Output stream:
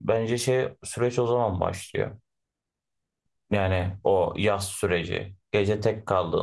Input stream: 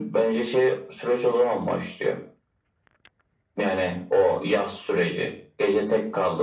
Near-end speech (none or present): none